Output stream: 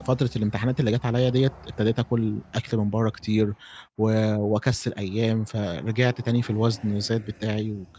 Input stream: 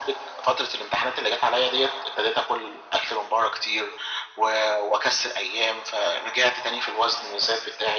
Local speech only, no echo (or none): none